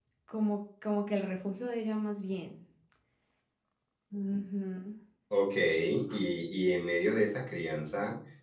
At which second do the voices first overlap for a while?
none

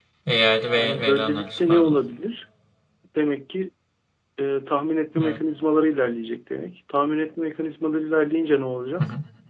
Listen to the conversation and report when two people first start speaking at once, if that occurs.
0.8 s

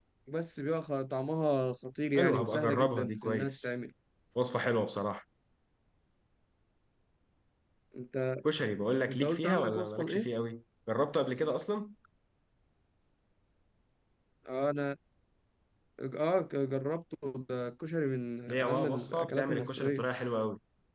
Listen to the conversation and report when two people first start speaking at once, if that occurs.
2.1 s

